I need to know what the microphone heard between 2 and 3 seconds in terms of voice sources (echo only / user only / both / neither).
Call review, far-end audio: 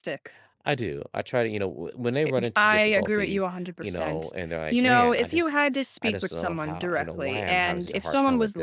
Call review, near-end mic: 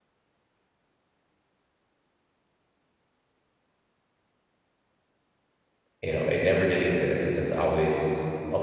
neither